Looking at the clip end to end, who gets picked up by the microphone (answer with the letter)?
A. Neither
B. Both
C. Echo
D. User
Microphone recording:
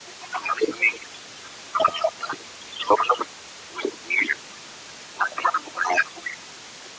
C